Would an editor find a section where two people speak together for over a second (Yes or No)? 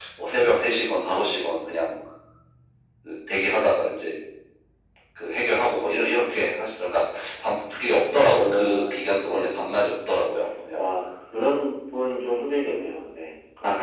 Yes